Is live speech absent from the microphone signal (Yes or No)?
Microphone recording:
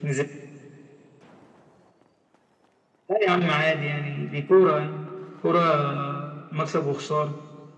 Yes